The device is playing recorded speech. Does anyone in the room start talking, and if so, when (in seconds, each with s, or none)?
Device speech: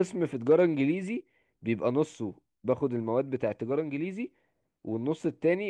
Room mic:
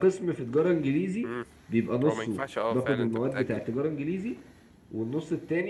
1.2 s